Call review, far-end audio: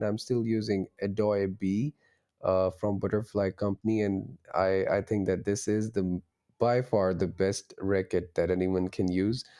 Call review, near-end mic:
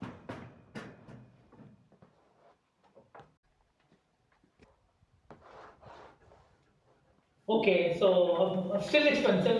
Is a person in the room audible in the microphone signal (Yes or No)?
Yes